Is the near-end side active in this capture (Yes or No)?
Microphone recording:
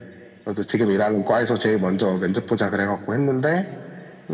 No